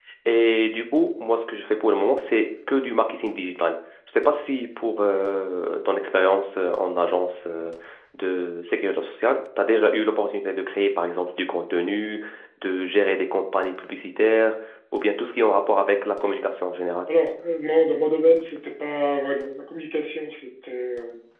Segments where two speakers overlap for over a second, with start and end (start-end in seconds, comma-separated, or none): none